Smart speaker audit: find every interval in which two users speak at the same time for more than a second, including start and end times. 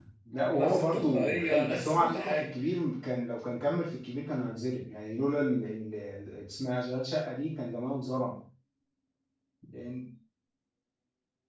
0.5-2.5

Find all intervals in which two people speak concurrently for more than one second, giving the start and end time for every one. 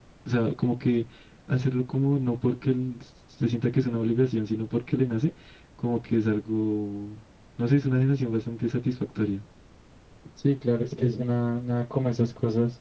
none

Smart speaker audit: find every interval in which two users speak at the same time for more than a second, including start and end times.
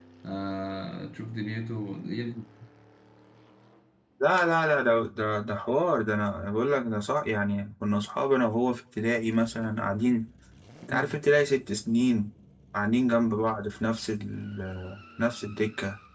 none

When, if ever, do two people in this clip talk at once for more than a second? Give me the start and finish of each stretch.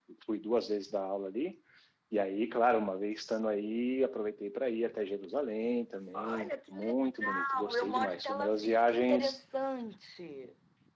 6.1-9.4

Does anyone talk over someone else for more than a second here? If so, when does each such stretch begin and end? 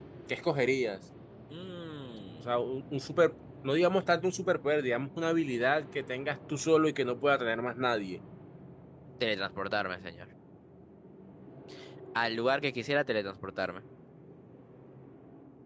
none

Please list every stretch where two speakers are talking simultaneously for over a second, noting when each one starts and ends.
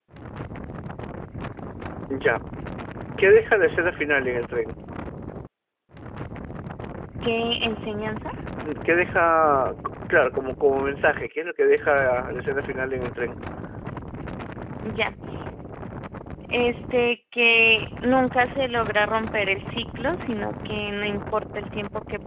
none

